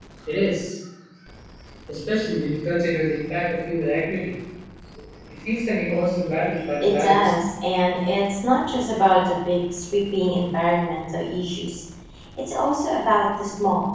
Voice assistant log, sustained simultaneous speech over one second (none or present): none